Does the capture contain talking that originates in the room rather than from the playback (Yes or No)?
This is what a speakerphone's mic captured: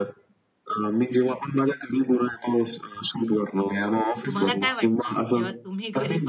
Yes